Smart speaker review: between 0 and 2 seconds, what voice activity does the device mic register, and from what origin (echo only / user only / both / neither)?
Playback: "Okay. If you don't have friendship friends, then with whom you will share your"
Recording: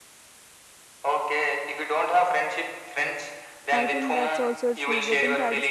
echo only